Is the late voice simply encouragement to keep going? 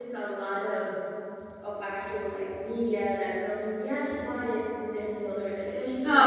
No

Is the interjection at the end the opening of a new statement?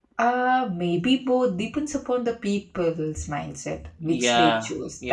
Yes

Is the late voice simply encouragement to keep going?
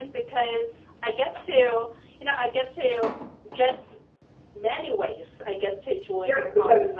No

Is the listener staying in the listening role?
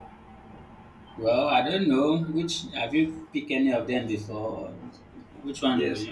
No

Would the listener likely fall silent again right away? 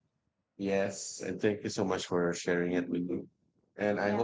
Yes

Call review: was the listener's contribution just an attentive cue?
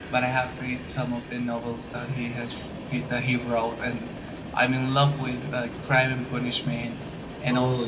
Yes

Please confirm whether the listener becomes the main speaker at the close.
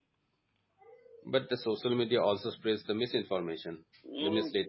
Yes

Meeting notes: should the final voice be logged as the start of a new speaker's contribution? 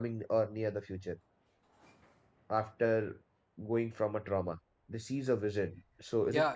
Yes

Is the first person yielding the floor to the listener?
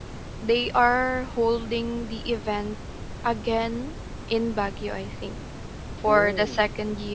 No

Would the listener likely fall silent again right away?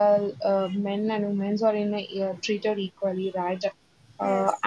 Yes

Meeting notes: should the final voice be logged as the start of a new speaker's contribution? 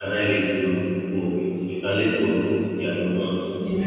No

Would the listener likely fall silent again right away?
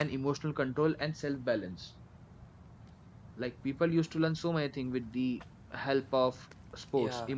No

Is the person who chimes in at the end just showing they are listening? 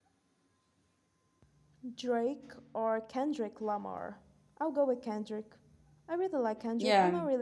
Yes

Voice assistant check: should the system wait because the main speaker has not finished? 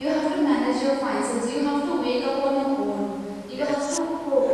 Yes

